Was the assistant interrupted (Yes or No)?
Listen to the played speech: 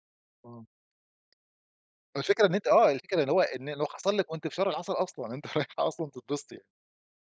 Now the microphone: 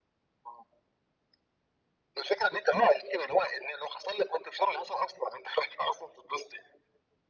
No